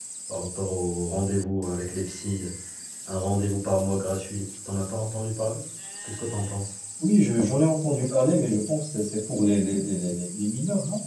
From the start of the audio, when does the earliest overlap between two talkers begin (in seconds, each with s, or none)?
none